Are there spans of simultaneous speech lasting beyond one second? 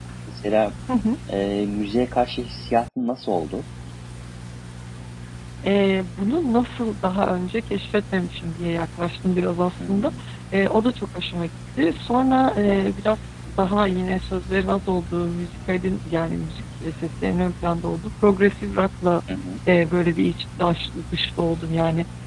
No

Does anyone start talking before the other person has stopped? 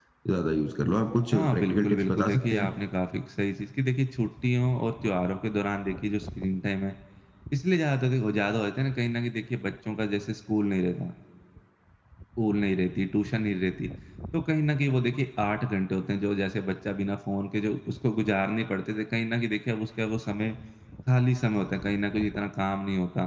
Yes, from 1.3 s

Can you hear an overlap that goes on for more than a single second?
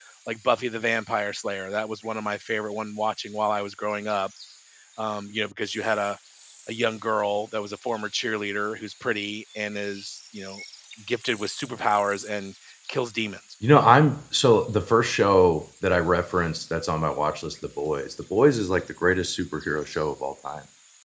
No

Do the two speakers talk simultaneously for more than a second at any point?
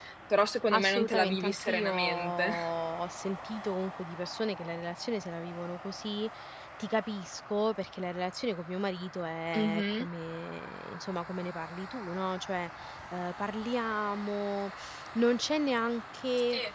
Yes, from 0.7 s

